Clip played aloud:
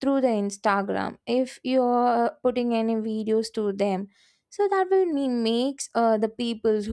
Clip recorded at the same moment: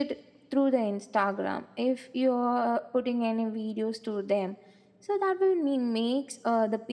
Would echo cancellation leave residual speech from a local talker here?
No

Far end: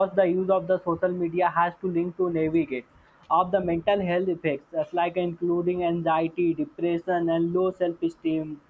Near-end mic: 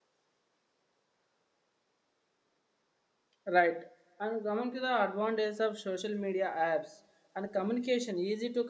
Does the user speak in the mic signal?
Yes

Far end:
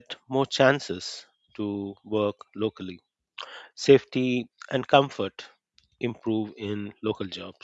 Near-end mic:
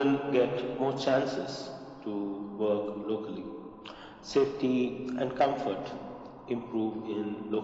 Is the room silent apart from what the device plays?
Yes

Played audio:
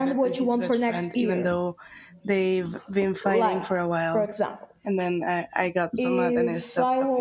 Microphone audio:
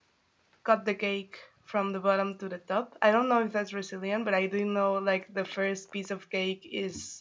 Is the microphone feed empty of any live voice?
No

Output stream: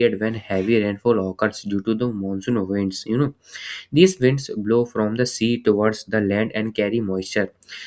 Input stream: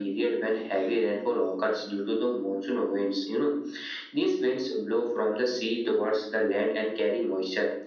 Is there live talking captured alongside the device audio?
No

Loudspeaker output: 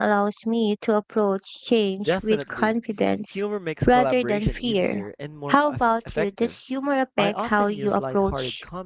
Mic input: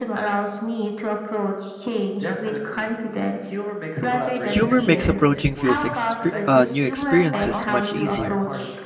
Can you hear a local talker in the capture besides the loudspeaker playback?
Yes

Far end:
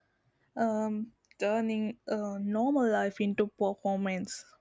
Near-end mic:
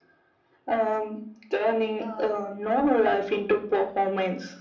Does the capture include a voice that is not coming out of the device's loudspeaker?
Yes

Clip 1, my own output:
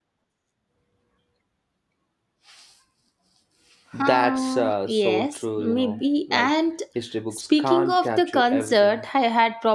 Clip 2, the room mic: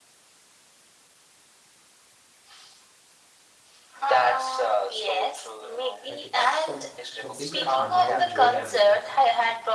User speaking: Yes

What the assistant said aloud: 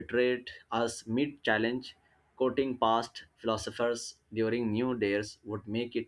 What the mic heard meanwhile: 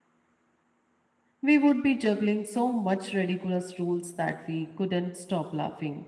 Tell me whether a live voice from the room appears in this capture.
Yes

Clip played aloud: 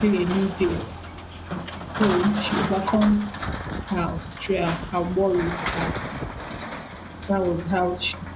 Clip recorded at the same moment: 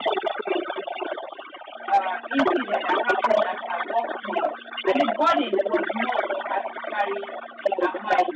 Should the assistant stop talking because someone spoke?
Yes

